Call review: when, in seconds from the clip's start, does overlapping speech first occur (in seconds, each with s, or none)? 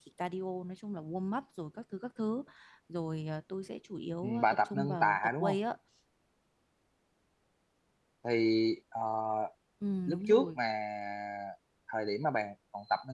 4.2 s